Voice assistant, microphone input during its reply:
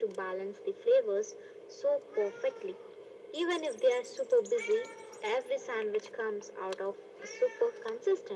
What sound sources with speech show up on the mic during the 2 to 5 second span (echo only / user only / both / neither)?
echo only